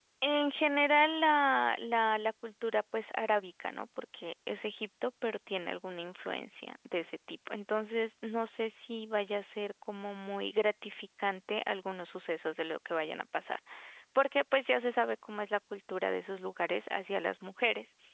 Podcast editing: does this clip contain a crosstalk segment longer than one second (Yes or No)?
No